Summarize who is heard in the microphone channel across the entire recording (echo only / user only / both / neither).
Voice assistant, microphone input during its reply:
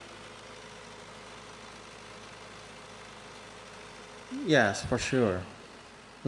user only